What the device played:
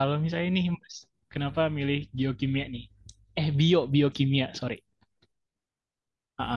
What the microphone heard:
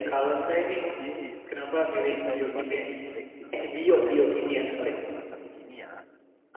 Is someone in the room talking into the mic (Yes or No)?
Yes